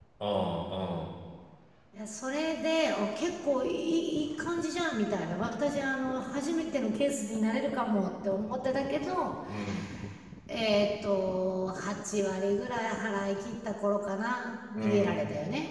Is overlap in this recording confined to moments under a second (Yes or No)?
Yes